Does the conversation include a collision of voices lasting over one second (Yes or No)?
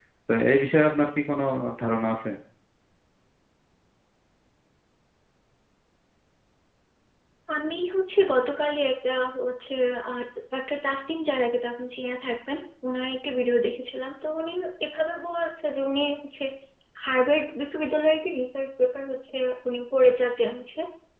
No